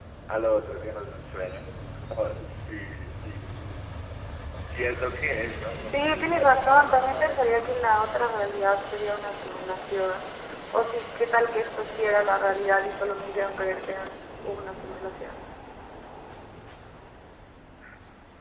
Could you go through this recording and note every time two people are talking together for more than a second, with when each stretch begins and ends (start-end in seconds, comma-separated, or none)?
5.9-7.5